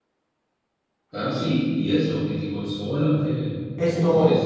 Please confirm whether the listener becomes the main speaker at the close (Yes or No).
Yes